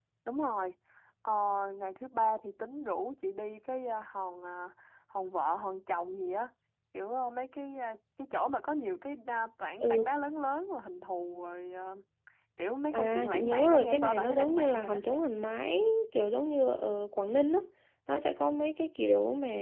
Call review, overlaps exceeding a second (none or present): present